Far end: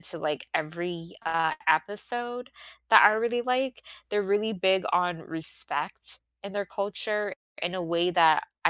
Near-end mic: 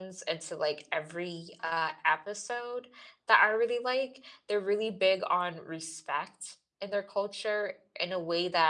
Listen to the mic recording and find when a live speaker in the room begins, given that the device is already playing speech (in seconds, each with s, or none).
none